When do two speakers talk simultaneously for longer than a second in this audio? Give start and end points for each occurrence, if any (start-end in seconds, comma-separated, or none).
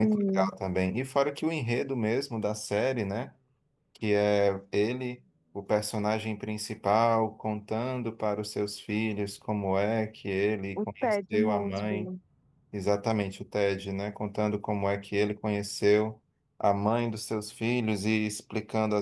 10.8-12.1